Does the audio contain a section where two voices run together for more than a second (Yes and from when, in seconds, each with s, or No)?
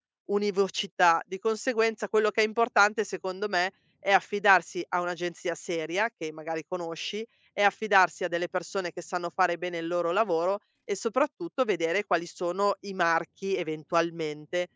No